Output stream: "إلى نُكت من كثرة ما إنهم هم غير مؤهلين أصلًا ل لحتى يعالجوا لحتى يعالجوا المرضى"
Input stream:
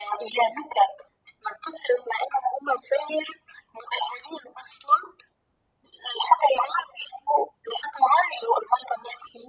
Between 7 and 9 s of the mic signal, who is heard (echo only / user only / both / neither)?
echo only